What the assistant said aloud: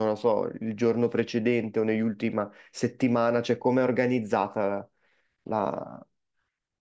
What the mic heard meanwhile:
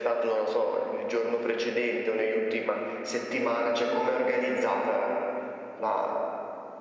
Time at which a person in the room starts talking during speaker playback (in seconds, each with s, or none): none